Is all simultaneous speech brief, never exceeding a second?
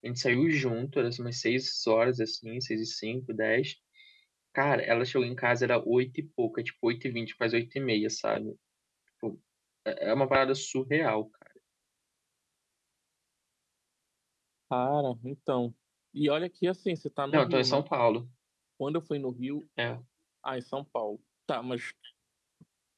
Yes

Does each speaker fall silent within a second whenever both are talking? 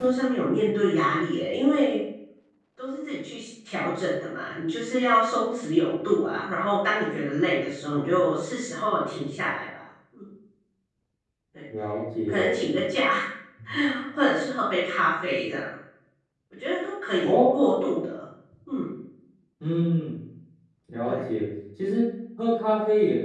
Yes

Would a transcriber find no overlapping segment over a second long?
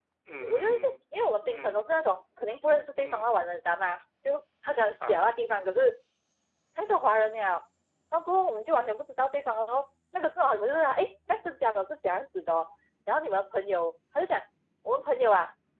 Yes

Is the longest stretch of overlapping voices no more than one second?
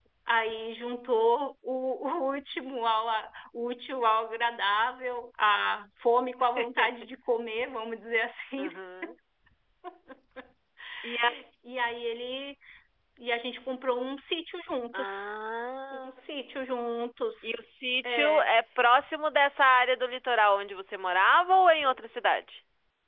Yes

